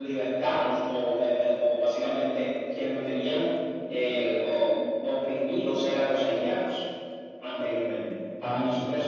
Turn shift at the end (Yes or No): No